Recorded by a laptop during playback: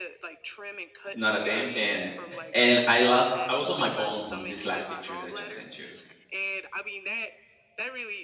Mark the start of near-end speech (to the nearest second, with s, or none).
1 s